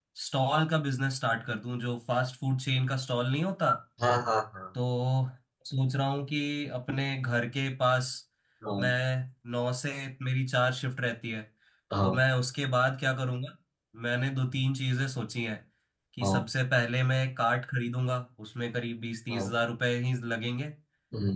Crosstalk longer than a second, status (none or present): none